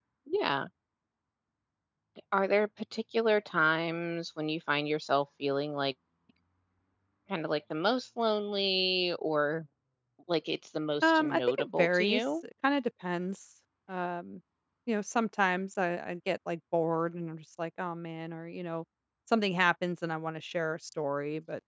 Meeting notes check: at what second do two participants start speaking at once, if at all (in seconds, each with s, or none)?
11.0 s